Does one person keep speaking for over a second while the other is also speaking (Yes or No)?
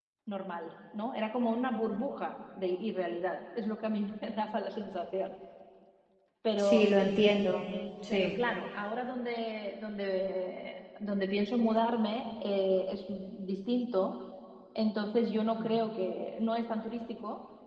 No